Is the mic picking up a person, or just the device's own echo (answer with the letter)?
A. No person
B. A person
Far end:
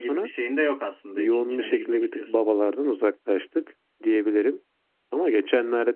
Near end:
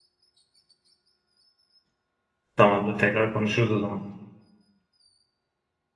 B